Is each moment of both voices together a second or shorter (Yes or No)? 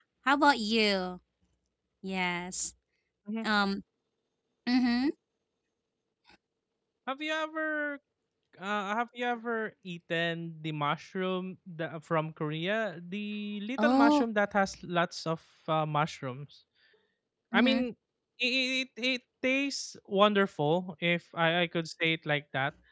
Yes